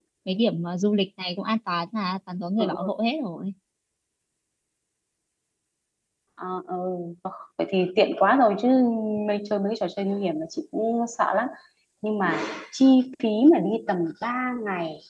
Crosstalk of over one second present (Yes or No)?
No